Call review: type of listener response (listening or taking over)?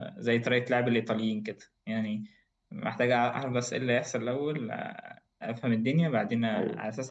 listening